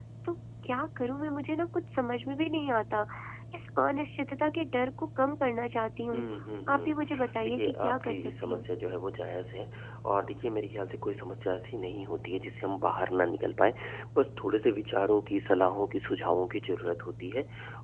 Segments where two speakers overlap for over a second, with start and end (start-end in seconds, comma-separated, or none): 7.4-8.6